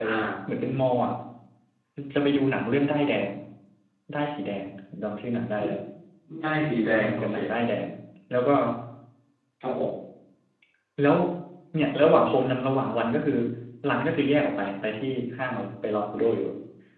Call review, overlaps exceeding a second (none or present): none